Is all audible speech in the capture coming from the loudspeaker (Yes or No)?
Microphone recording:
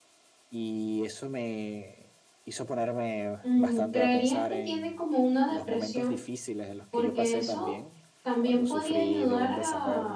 No